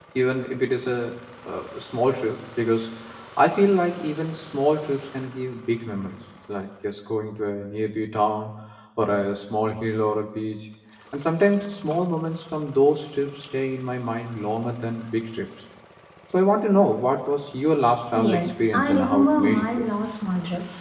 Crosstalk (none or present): present